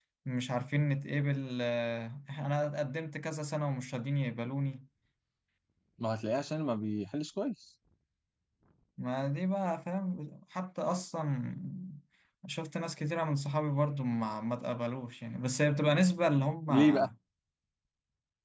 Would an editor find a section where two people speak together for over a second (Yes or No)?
No